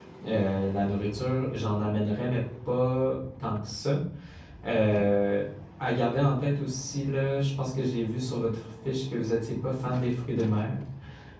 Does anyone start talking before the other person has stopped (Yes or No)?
No